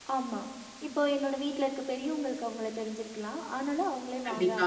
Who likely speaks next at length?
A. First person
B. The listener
A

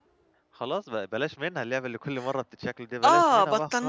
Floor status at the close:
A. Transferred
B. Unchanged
A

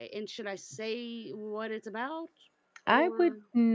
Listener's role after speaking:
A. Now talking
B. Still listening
A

